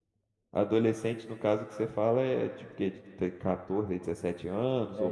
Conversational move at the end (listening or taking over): taking over